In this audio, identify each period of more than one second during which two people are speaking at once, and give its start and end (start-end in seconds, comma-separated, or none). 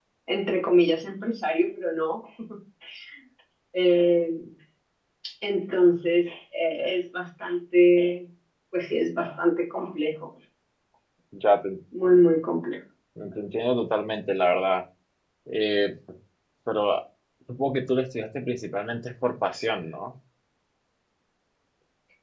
none